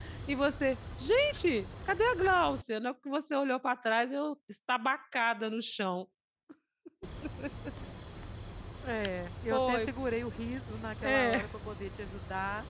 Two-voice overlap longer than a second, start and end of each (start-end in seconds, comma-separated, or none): none